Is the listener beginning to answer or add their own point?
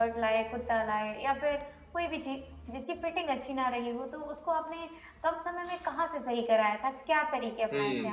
Yes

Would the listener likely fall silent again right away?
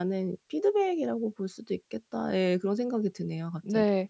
No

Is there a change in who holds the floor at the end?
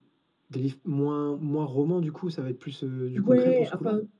Yes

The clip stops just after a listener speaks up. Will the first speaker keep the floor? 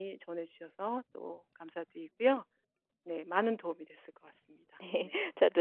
No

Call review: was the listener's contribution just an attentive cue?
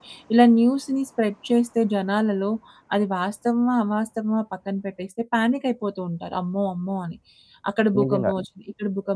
Yes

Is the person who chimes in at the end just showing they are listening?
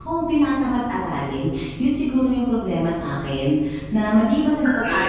Yes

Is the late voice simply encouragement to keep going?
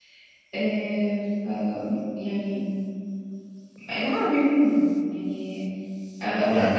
Yes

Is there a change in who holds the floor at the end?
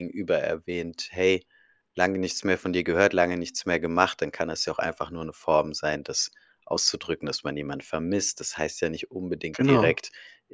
No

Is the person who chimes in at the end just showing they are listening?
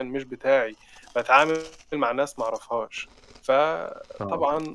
Yes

